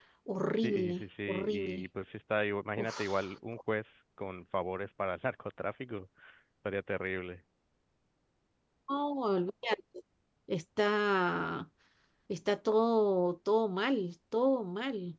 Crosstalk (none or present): present